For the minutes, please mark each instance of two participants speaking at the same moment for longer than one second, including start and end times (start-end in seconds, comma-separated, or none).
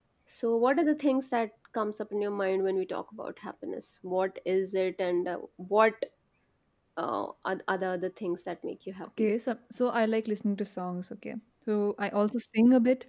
none